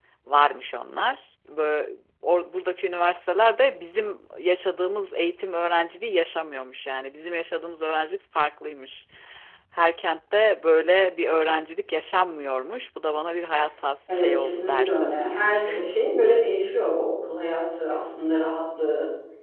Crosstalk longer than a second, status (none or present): present